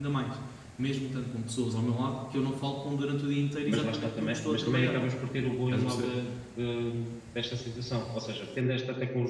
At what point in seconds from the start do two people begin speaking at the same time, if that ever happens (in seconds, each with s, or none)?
3.7 s